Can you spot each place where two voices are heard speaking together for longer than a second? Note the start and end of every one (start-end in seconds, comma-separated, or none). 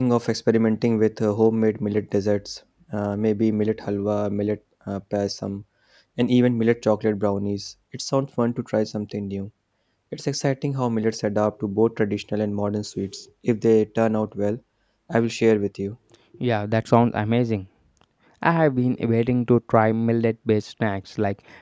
none